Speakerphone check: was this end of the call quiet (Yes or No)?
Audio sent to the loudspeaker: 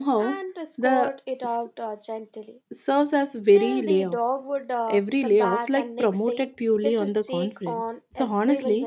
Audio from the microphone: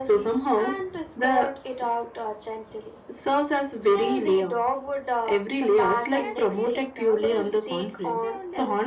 No